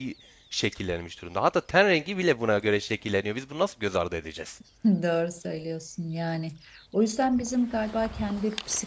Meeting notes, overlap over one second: none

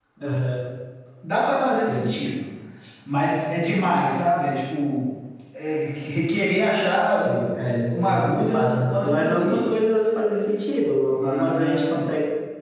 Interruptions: present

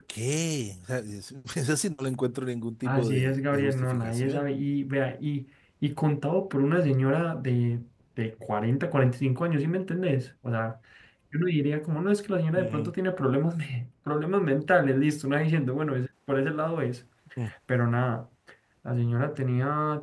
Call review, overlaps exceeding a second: present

